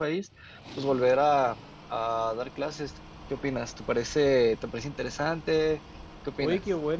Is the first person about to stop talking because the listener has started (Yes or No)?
Yes